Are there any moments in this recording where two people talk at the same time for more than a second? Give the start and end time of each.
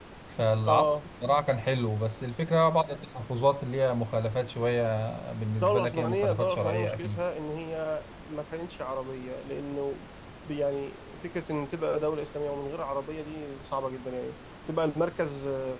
5.6-7.2

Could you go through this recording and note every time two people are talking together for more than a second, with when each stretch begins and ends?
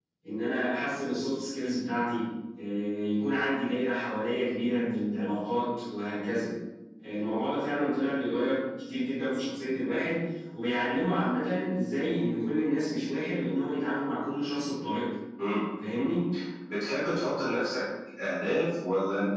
none

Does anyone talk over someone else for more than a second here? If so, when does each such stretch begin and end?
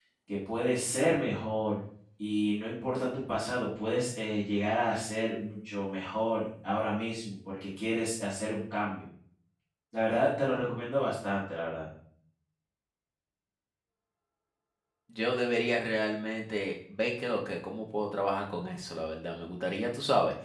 none

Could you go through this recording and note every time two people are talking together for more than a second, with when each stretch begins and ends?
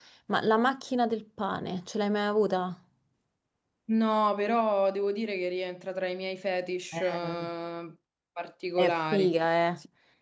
none

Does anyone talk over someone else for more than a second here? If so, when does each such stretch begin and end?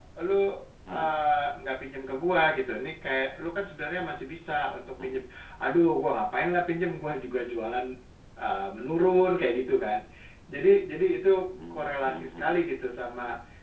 11.7-13.0

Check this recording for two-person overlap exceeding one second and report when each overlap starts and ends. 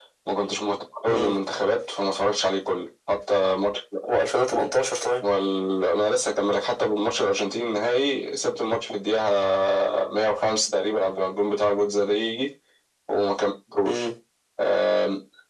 none

